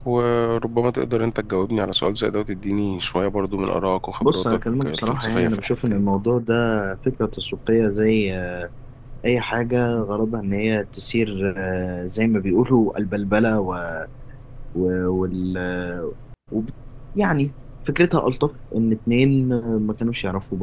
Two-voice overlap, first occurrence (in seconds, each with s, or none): 4.2 s